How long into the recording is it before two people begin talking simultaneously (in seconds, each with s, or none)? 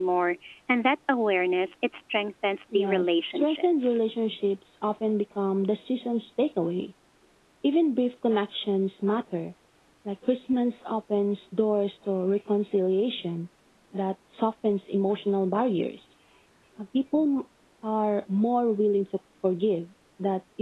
2.7 s